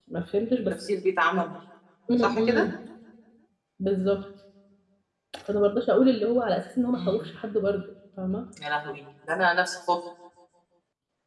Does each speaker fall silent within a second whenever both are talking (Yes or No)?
Yes